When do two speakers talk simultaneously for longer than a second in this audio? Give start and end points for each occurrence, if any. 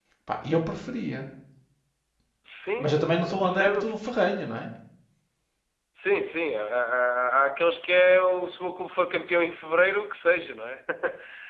2.8-4.1

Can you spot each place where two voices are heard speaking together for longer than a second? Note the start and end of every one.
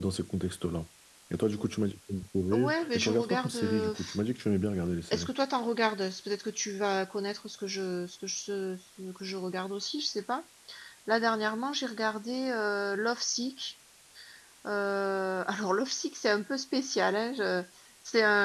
2.5-4.2

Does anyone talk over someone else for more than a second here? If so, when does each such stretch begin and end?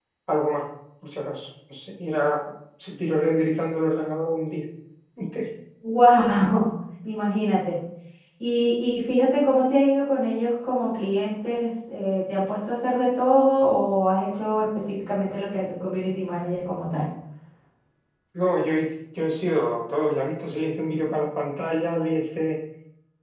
none

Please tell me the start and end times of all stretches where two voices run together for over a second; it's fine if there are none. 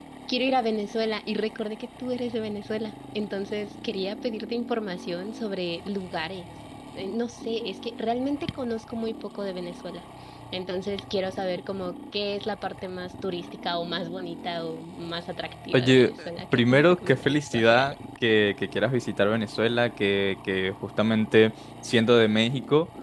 16.5-17.9

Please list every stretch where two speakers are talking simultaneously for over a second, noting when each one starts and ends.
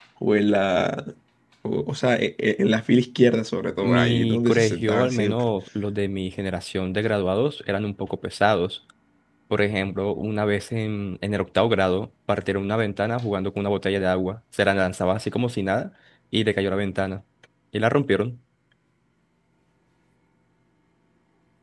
3.8-5.4

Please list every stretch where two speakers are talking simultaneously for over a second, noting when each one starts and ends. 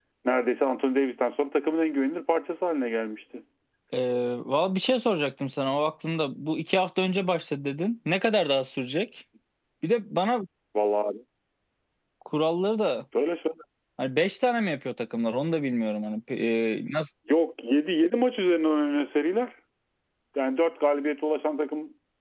none

